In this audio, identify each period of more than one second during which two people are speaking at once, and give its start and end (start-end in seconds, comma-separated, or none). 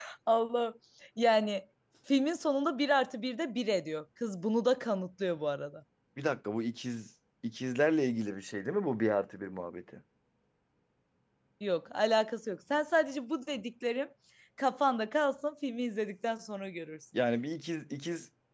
none